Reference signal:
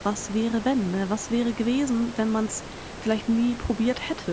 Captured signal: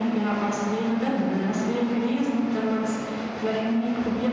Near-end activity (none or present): none